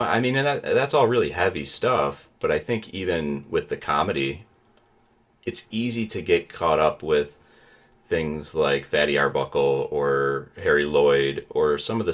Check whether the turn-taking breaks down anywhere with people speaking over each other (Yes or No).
No